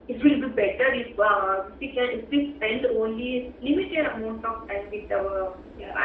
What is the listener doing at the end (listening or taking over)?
taking over